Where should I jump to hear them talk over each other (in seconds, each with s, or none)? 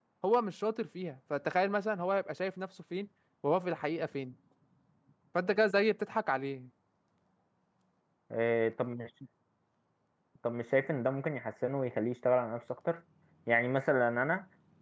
none